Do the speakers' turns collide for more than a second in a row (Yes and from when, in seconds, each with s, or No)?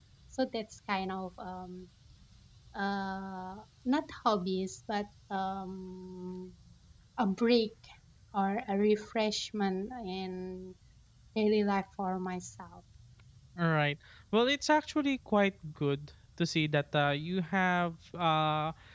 No